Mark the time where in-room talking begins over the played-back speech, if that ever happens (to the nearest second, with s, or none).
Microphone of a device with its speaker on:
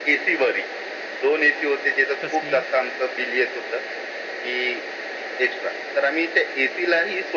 2 s